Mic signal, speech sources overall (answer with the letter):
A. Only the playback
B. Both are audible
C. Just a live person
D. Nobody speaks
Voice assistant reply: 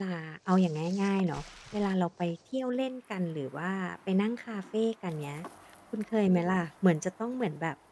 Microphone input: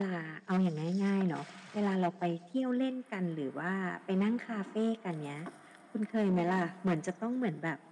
A